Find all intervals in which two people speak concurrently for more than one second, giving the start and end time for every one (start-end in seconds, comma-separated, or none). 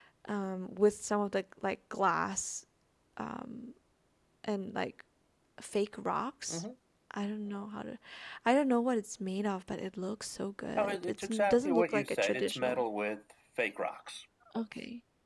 10.8-12.8